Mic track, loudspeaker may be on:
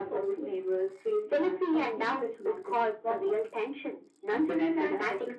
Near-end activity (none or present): none